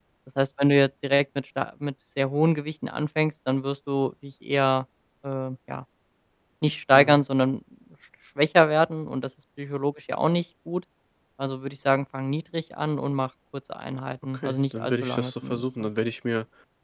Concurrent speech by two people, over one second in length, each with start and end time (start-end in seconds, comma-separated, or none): 14.3-15.9